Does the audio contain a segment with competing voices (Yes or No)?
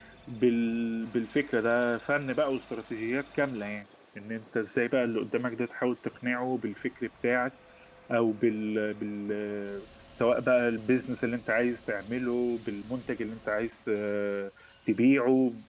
No